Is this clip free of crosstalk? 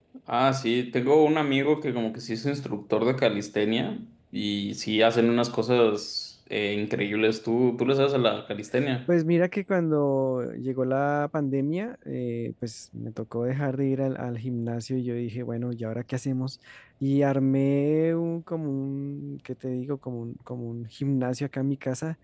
Yes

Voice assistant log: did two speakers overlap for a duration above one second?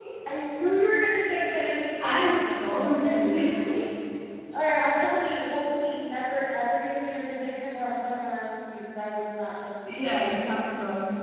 Yes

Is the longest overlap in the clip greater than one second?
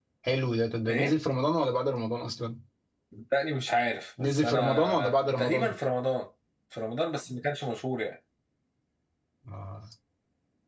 Yes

